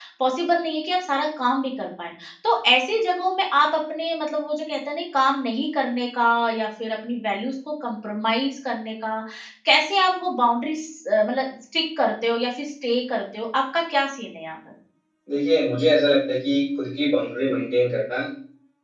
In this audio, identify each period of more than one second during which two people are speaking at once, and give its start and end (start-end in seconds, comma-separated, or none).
none